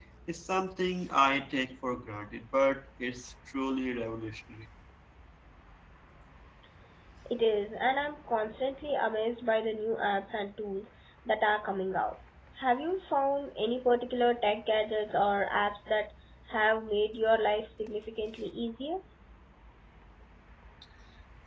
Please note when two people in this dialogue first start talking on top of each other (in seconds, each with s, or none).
none